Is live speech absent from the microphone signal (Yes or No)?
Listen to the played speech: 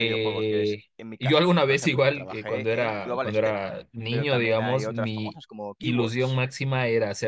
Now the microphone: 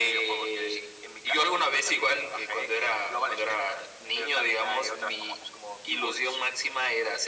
Yes